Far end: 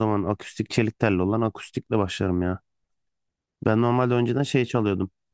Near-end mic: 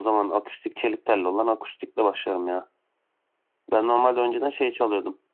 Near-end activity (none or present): none